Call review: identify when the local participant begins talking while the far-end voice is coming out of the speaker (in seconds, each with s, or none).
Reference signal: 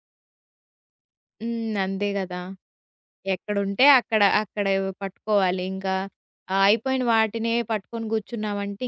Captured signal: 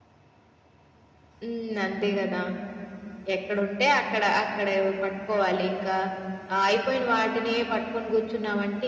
none